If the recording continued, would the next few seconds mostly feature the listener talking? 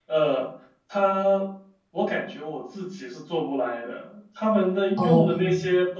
No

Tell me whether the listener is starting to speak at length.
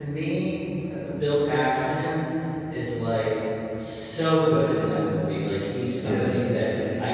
No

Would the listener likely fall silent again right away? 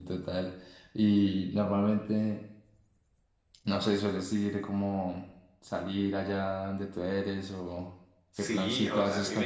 No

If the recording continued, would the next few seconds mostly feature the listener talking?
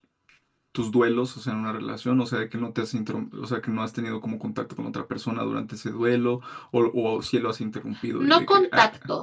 Yes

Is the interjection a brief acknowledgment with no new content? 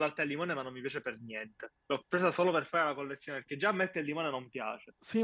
No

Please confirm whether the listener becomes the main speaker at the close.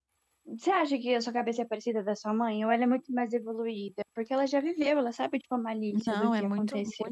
Yes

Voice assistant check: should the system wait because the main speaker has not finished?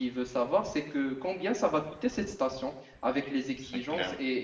Yes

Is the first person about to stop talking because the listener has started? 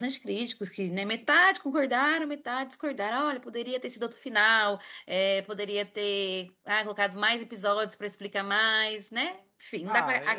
Yes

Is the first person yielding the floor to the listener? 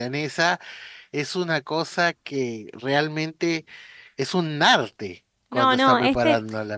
Yes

